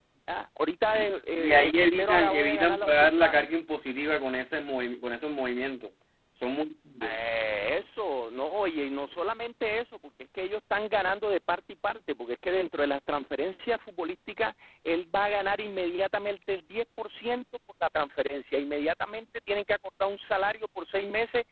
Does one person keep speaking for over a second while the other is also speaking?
Yes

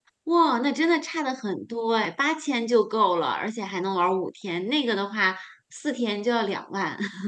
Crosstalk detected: No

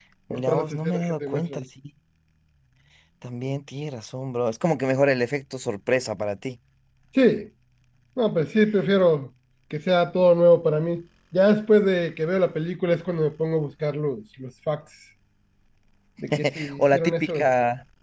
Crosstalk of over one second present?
Yes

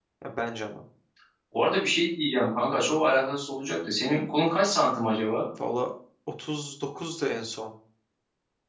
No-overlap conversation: Yes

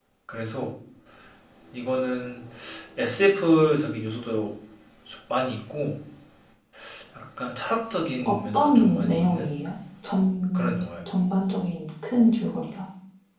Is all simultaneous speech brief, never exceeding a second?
No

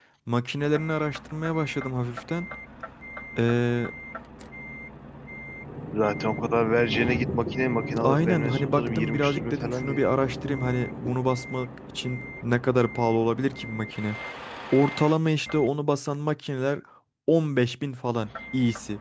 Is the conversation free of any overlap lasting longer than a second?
No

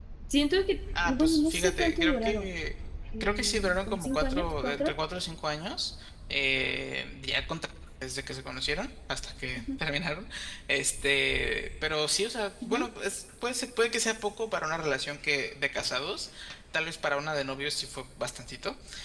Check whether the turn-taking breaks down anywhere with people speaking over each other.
Yes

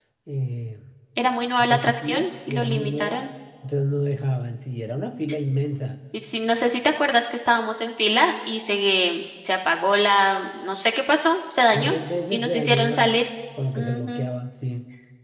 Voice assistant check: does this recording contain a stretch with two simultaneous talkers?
Yes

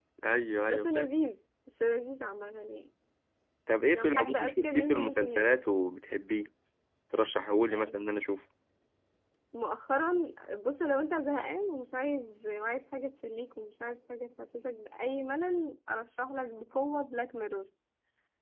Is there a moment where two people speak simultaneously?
Yes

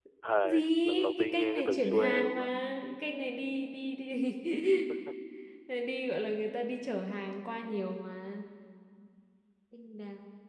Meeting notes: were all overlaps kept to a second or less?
No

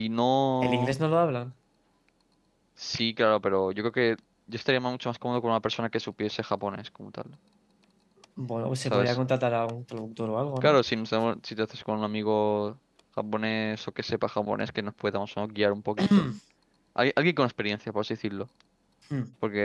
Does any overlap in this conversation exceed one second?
No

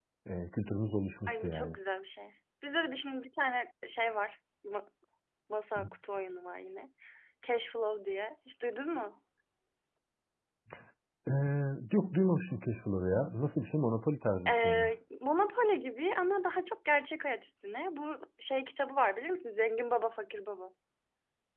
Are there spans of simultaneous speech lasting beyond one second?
No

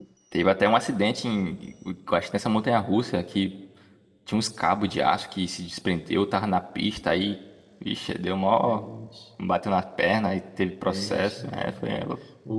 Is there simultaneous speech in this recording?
Yes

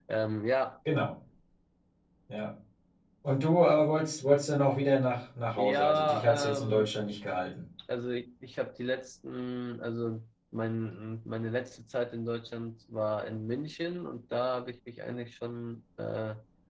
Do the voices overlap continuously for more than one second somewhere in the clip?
Yes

